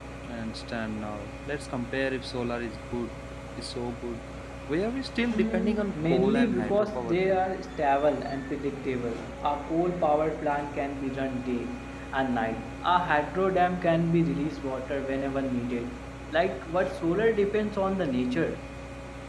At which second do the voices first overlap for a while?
5.3 s

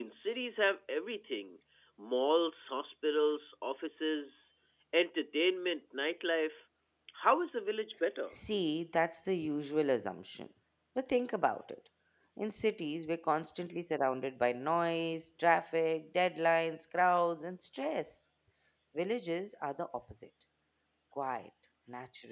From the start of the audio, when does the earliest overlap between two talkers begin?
none

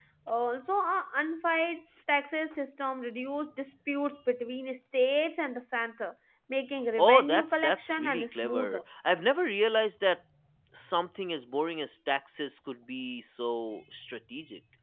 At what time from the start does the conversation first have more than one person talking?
7.0 s

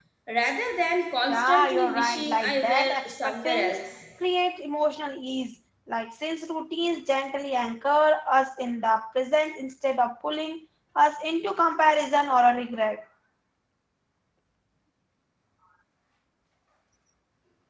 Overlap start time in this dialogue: 1.3 s

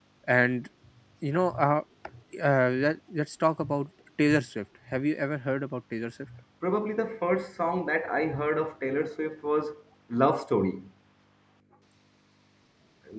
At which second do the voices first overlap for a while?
none

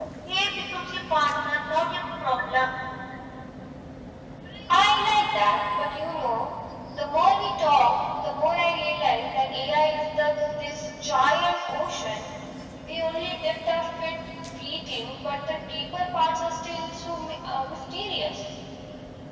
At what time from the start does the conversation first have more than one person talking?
none

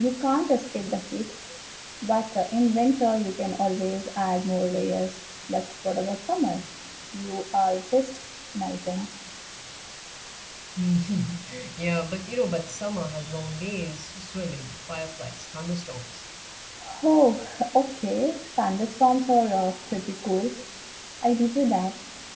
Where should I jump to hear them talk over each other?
none

